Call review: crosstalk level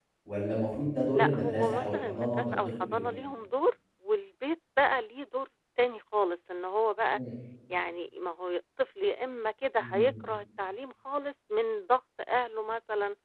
present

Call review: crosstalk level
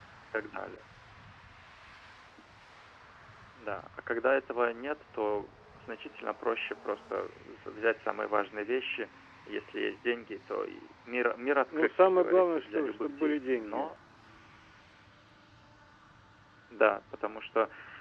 present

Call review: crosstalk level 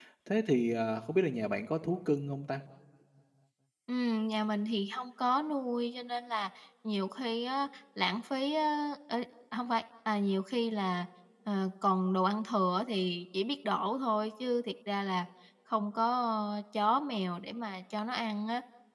none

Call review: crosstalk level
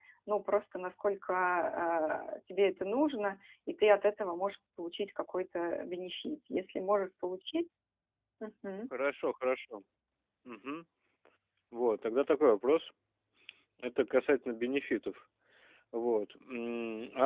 none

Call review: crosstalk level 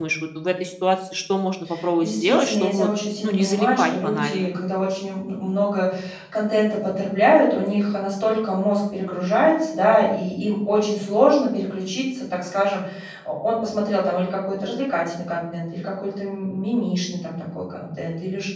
present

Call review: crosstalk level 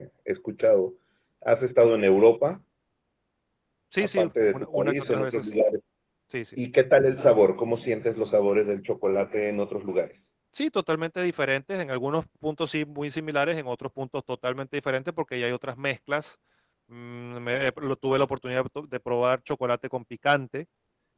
present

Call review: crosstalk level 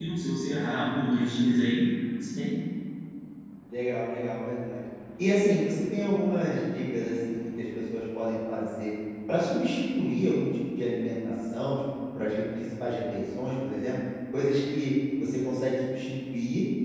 none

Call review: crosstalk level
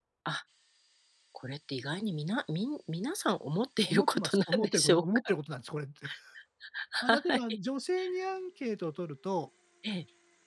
present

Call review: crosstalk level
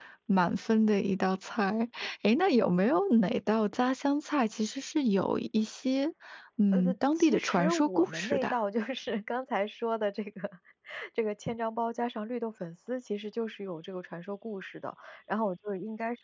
present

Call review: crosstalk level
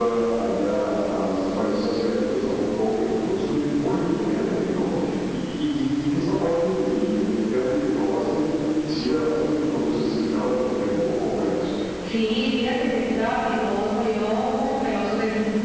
none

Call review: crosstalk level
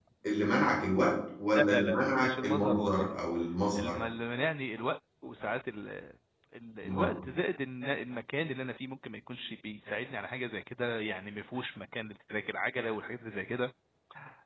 present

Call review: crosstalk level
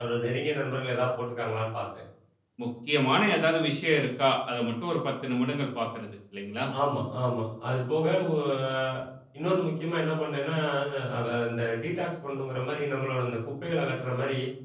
none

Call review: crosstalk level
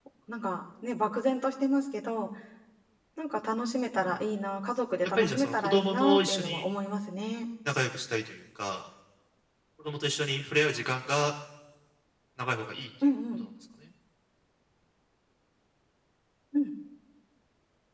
present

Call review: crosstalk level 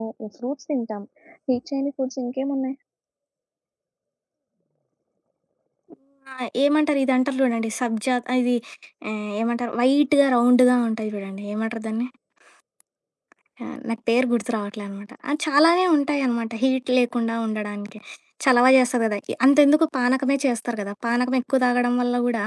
none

